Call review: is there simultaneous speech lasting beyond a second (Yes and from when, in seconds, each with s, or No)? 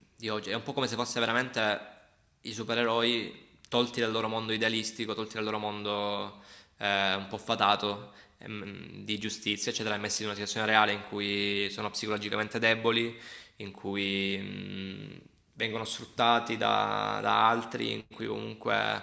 No